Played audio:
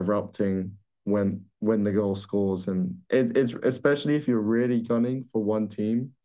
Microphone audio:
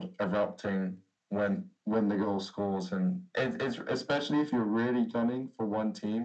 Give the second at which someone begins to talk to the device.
none

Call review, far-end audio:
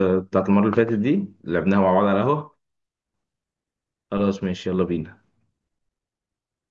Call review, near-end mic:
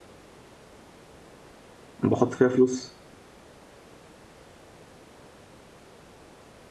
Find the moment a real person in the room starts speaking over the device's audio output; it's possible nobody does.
2.0 s

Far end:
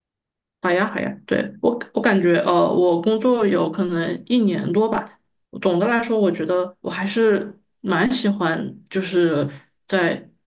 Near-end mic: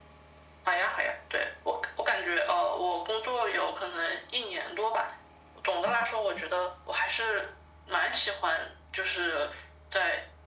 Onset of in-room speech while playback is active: 5.8 s

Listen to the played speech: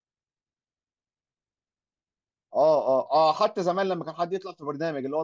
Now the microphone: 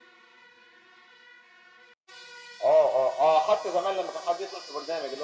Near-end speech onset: none

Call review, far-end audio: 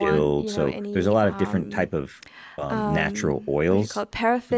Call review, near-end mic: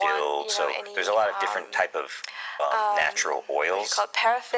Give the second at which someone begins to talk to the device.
none

